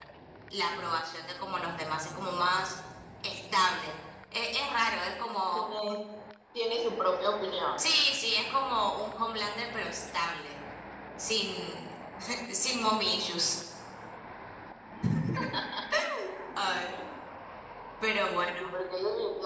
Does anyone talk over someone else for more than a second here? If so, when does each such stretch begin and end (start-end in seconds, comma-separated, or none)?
none